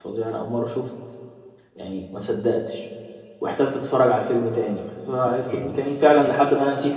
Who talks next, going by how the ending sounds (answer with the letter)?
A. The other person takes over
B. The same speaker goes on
B